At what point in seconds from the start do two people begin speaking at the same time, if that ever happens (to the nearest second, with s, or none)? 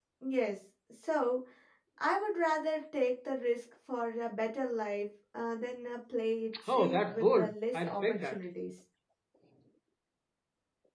7 s